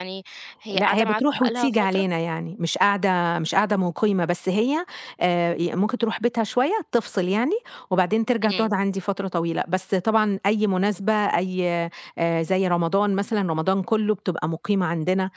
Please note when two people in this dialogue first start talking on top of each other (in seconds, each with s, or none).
0.7 s